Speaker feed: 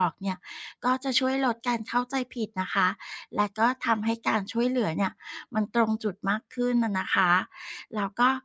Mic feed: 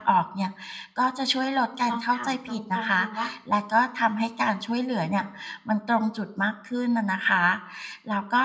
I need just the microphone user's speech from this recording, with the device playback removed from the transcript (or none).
ลองถามตรงๆดูว่า